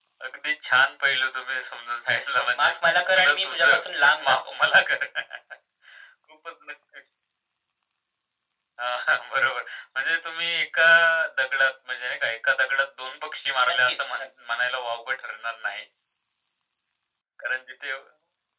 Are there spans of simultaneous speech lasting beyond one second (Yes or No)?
Yes